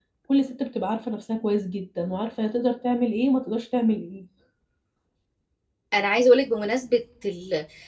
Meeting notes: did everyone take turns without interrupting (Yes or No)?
Yes